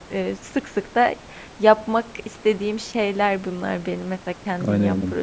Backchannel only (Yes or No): No